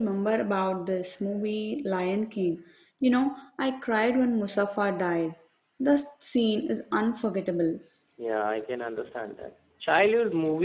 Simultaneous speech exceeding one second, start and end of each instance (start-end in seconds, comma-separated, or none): none